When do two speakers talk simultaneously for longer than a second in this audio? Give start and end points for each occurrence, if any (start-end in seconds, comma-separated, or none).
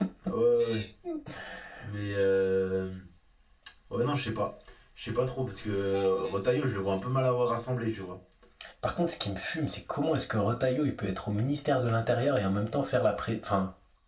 none